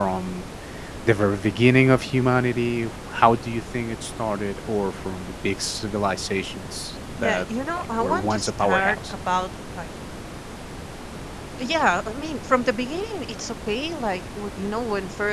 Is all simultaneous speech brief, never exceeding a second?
No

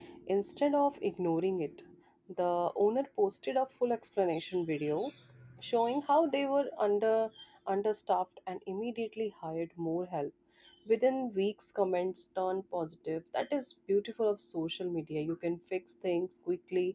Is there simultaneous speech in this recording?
No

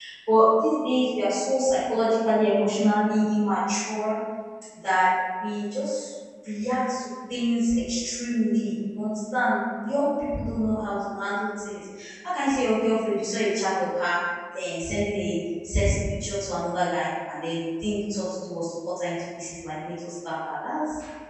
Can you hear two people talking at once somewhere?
No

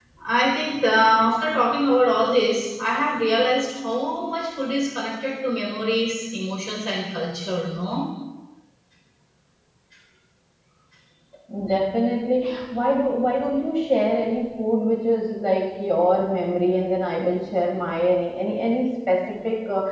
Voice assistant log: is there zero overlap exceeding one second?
Yes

